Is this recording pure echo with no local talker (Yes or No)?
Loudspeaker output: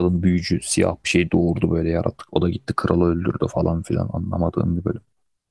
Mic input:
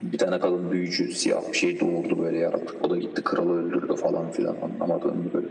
Yes